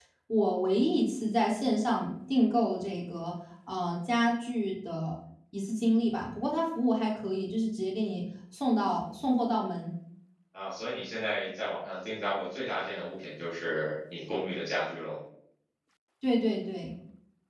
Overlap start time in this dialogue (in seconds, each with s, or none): none